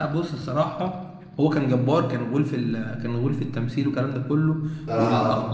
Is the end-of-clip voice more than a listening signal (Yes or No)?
No